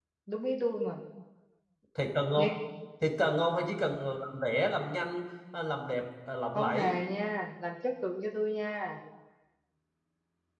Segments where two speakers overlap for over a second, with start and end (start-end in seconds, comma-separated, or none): none